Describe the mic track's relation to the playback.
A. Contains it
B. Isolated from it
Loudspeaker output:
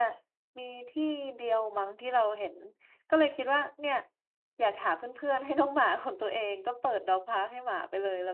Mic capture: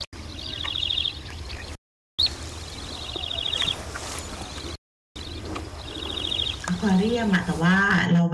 B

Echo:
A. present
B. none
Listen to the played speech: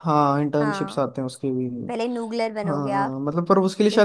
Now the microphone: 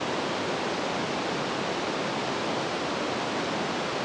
B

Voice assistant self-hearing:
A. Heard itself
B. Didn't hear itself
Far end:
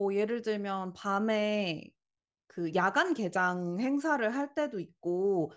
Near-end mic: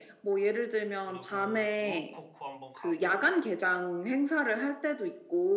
A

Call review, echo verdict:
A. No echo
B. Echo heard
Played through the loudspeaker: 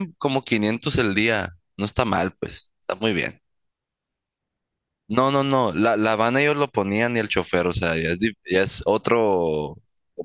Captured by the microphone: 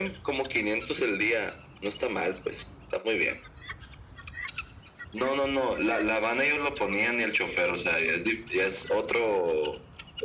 B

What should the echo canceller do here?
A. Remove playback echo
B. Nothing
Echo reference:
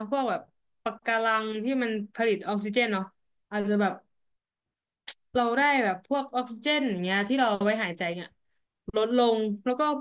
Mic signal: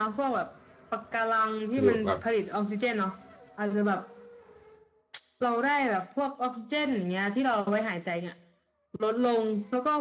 A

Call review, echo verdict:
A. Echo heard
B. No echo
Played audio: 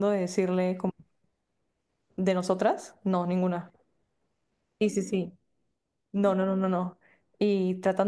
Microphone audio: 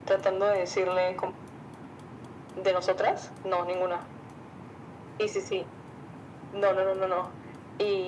A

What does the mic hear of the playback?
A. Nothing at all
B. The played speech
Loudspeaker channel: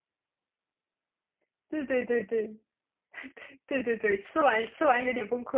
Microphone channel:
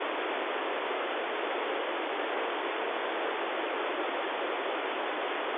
A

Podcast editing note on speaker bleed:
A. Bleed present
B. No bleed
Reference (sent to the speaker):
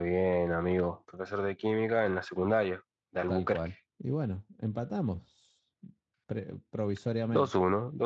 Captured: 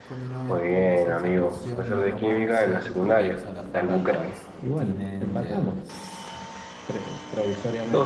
A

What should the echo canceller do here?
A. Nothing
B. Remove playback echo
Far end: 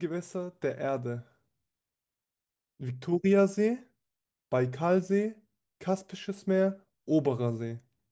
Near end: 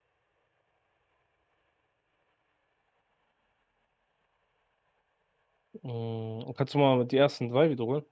A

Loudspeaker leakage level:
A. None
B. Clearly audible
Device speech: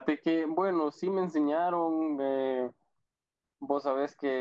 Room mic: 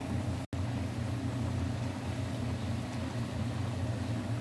A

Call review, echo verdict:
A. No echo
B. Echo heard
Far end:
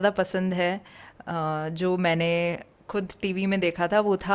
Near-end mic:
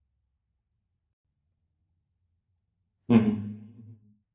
A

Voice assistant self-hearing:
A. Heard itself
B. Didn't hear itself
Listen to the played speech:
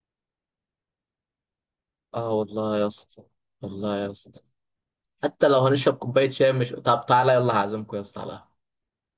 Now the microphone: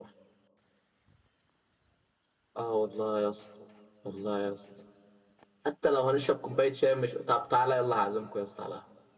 A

